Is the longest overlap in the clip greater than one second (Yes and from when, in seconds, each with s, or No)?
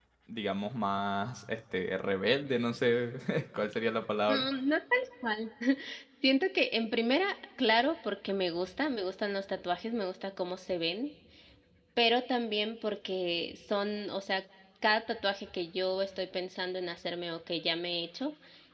No